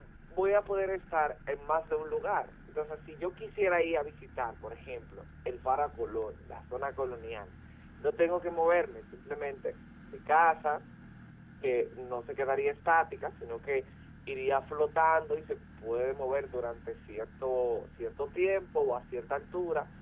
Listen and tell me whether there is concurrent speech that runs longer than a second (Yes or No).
No